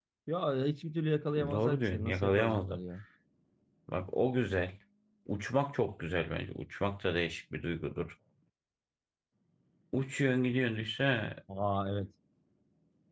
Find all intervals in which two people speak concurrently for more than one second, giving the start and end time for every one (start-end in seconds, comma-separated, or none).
1.5-2.8